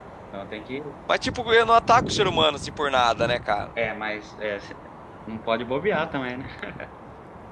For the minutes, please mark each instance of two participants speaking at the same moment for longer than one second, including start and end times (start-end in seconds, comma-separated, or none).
none